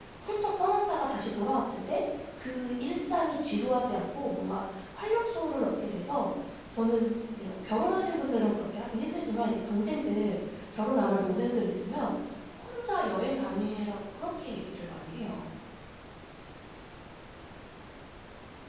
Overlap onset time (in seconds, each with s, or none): none